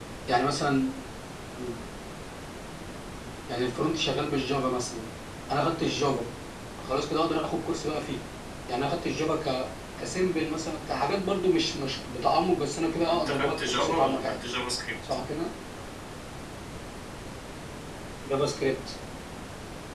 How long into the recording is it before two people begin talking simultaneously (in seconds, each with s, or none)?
13.1 s